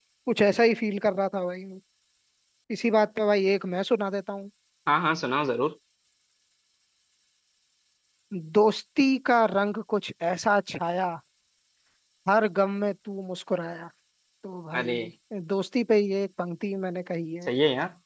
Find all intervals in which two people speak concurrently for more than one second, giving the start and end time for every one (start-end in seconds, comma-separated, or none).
none